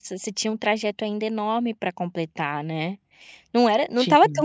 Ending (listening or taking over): listening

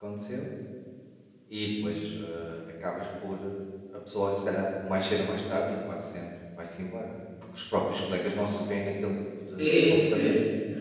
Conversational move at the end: taking over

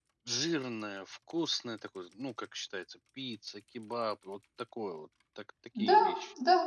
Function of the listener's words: taking over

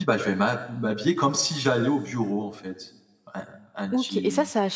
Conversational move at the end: taking over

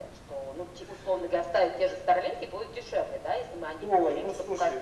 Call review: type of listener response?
taking over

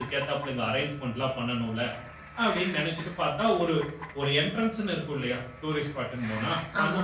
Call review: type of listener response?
listening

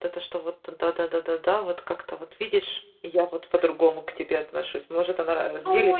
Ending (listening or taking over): taking over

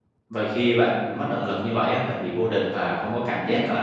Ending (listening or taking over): listening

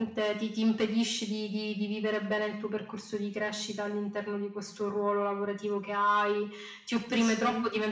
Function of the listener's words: listening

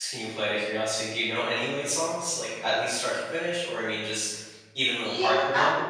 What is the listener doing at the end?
taking over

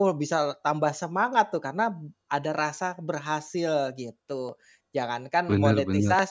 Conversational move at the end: listening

